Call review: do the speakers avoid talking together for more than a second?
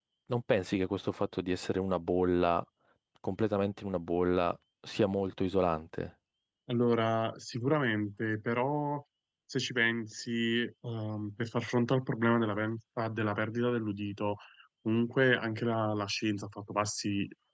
Yes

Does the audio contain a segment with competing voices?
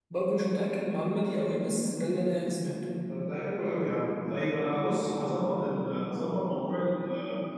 No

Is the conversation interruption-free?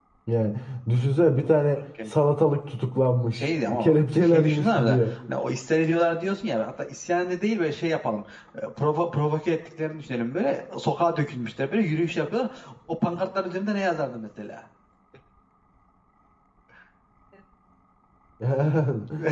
No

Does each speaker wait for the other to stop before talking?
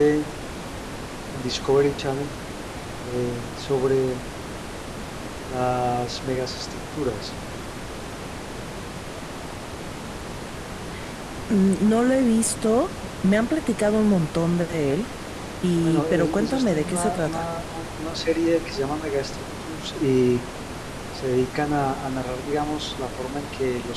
No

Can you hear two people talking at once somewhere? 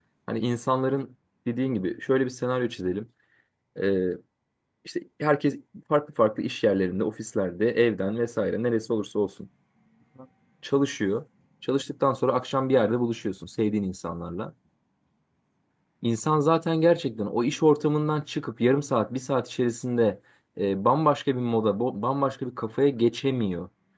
No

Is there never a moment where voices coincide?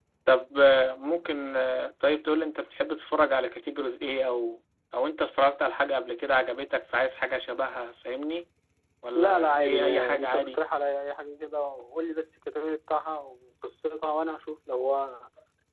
No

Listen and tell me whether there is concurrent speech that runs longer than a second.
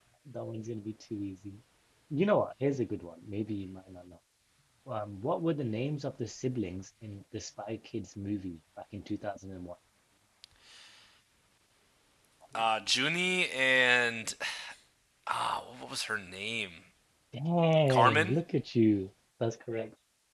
No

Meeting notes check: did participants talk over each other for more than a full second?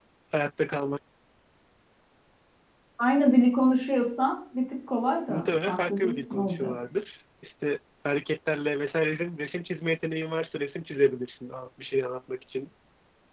Yes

